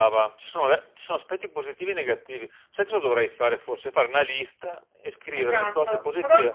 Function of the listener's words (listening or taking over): taking over